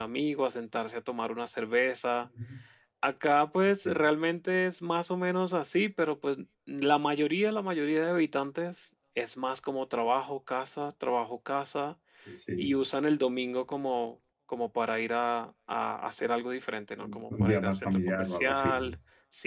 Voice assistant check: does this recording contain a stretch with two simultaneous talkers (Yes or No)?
Yes